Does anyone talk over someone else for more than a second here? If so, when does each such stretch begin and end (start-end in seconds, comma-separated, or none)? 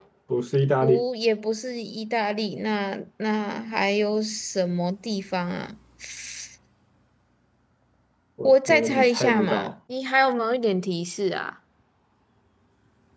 8.4-9.7